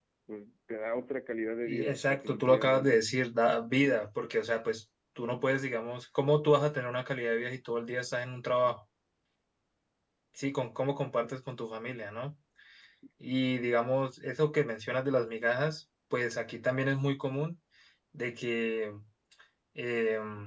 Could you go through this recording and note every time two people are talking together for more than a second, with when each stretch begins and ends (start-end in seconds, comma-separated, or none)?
1.6-3.0